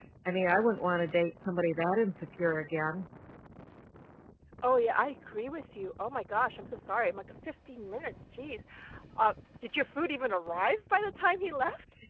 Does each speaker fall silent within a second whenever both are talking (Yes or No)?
Yes